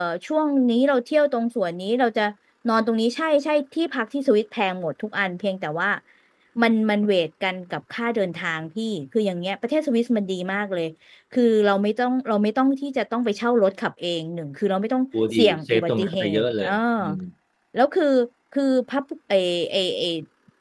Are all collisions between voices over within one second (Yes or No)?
No